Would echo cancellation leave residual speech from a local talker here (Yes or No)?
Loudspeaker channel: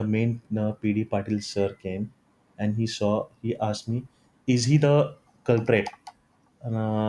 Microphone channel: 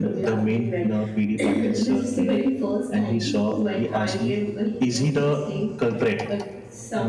Yes